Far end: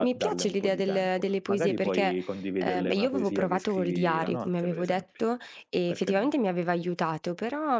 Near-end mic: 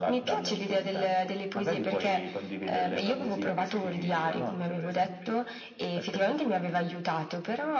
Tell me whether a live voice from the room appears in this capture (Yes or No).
No